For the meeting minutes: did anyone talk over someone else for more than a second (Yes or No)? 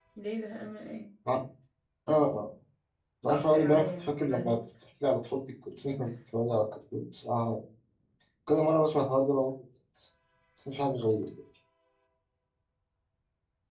Yes